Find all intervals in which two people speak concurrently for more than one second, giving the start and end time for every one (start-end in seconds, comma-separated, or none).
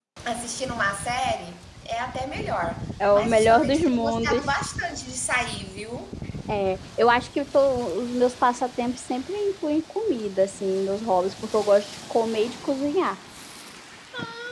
3.1-4.4